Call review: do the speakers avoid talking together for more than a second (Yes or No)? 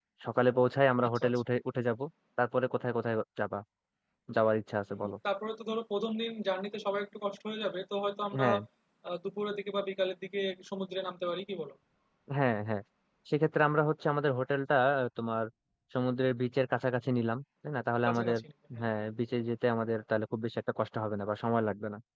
Yes